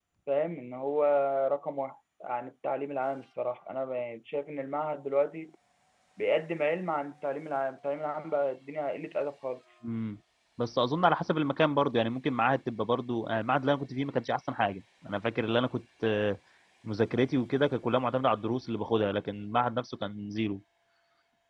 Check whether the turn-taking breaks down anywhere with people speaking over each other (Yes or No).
No